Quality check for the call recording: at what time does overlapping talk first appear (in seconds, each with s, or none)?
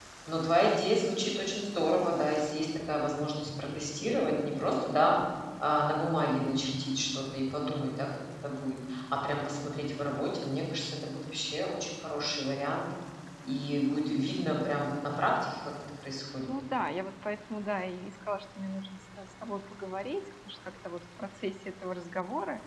none